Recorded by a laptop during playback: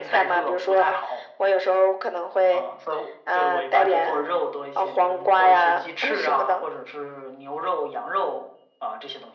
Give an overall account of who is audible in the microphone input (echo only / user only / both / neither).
echo only